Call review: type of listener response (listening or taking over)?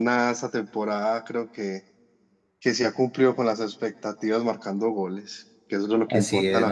taking over